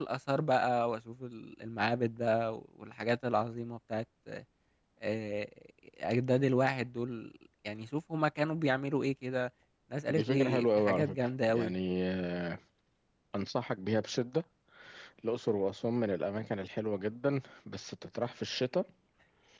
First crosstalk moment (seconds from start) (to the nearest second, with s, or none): 10 s